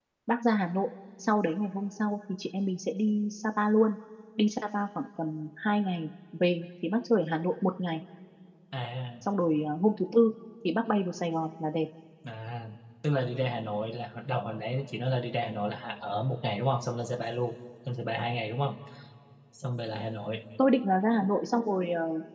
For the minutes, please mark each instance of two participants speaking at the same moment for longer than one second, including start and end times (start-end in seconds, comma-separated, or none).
none